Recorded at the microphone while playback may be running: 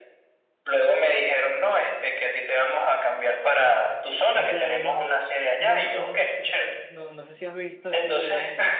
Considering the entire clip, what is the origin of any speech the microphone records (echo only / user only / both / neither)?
both